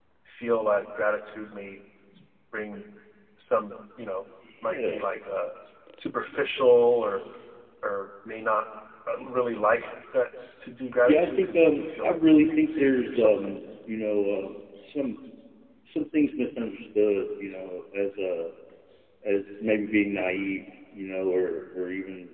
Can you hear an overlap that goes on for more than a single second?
Yes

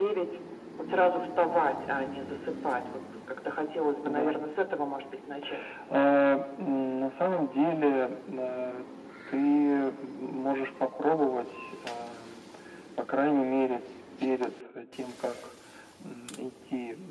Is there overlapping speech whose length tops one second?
No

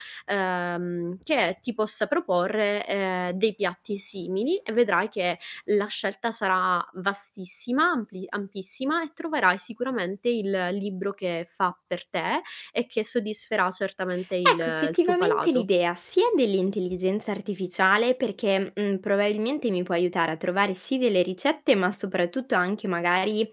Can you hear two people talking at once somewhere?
Yes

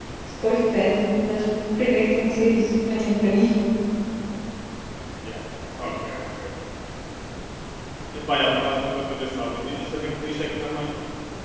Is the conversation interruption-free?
Yes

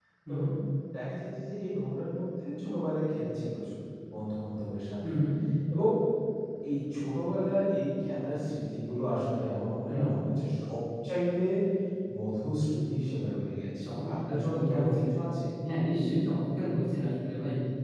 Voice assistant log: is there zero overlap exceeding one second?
No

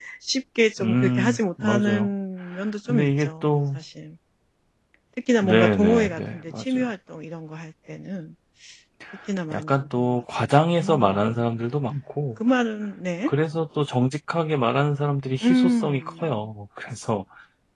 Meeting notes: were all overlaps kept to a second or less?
No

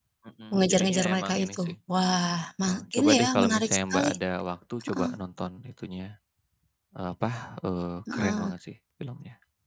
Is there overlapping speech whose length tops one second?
Yes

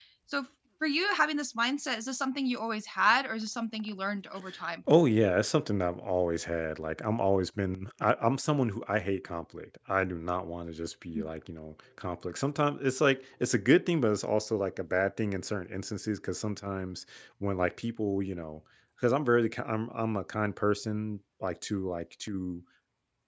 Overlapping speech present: No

